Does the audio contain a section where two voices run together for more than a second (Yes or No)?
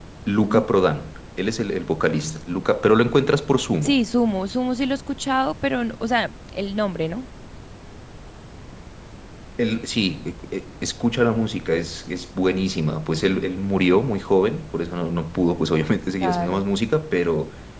No